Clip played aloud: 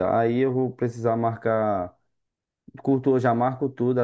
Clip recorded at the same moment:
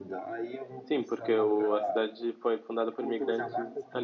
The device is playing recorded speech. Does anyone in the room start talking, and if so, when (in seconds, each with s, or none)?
0.8 s